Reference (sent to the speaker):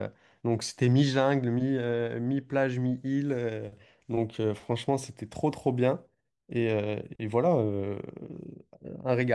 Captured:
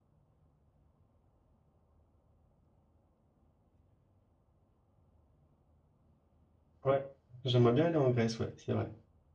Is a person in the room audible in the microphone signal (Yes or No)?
Yes